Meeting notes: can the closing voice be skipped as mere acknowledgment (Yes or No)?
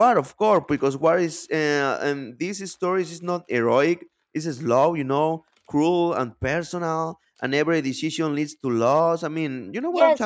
No